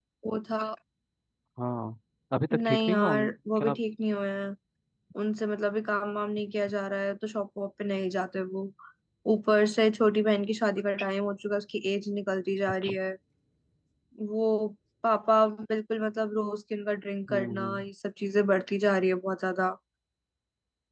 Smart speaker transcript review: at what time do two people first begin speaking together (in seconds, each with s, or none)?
2.5 s